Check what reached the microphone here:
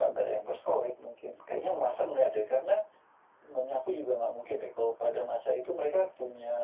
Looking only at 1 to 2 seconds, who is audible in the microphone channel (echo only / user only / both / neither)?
echo only